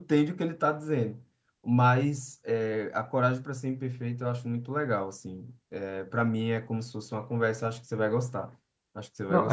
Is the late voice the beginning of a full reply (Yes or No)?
Yes